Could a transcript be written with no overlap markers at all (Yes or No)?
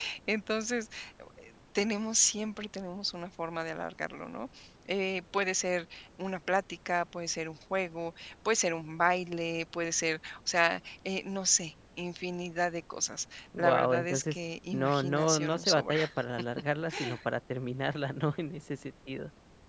No